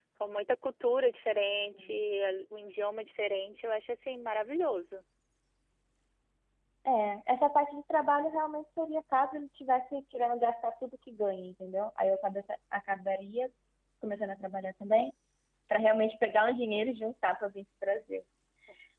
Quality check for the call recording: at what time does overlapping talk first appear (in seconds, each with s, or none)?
none